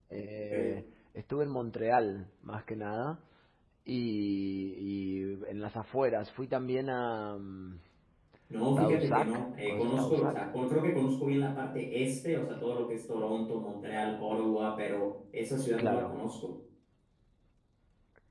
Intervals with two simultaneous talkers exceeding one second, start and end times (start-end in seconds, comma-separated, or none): 8.8-10.3